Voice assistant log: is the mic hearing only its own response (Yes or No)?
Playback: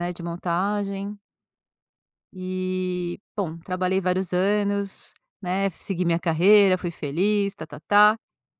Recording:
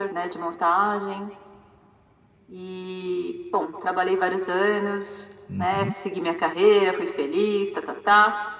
No